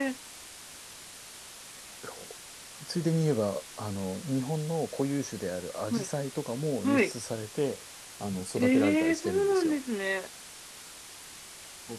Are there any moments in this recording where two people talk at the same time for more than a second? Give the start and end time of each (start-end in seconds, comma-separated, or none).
8.6-9.8